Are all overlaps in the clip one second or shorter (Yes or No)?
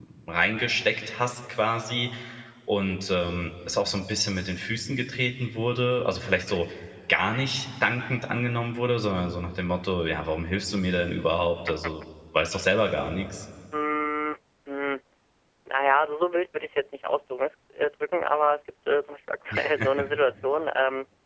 Yes